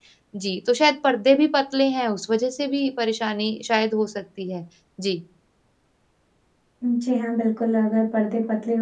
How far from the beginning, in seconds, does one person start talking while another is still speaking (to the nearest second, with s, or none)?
none